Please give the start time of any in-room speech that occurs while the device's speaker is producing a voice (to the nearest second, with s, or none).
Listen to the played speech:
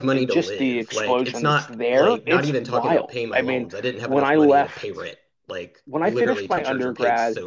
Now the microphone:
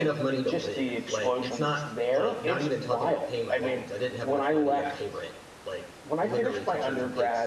5 s